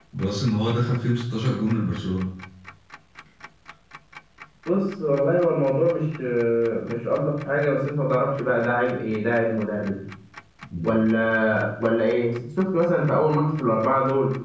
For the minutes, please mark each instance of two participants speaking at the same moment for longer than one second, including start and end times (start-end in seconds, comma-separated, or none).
none